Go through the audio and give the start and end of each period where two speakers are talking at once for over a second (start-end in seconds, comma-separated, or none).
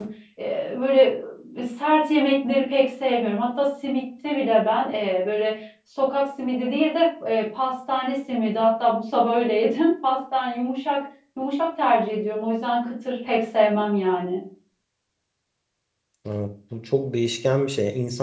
none